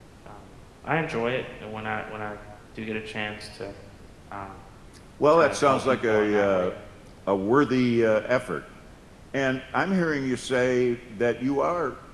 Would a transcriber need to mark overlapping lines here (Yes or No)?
Yes